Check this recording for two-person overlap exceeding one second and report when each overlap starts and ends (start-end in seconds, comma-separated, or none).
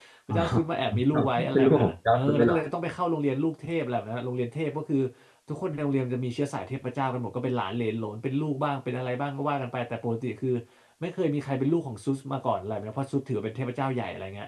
1.1-2.6